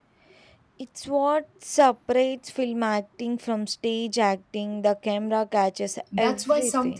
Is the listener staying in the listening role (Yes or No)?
No